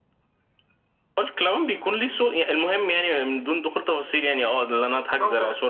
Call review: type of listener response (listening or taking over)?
listening